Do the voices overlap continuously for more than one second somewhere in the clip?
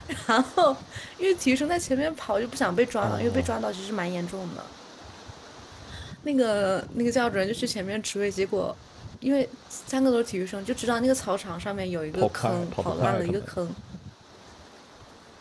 Yes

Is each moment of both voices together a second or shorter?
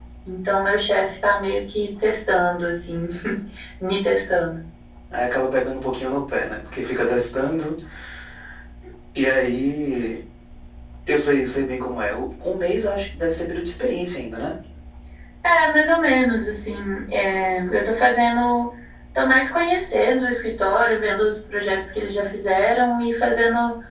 Yes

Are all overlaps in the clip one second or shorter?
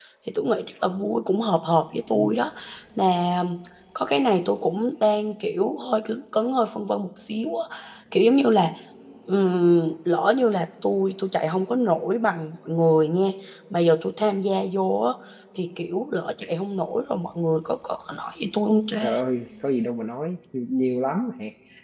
Yes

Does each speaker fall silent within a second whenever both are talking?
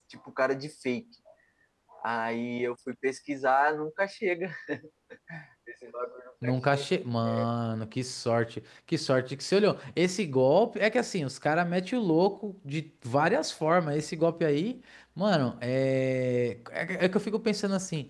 Yes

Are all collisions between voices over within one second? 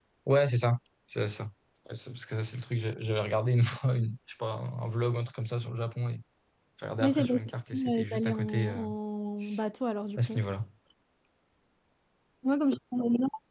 No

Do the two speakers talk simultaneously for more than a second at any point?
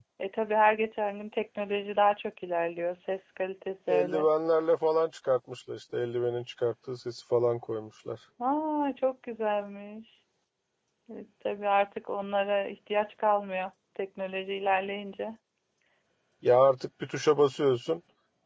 No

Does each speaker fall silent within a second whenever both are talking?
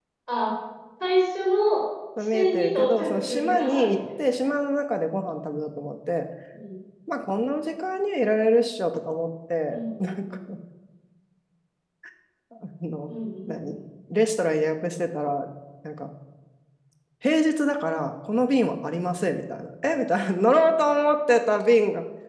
No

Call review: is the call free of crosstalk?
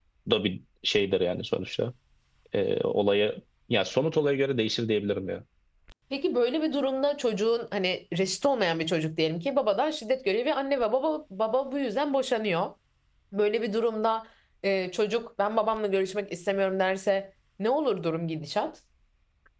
Yes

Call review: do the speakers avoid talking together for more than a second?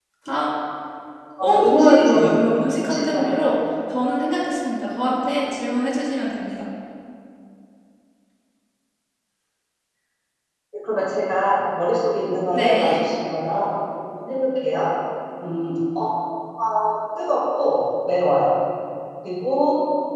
No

